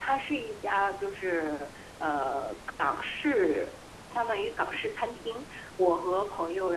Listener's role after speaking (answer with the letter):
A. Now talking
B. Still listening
B